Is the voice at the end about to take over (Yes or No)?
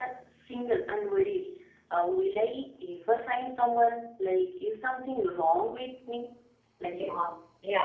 Yes